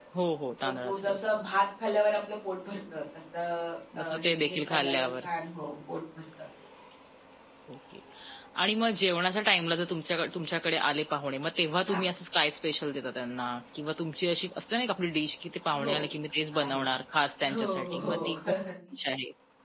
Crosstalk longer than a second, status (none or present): present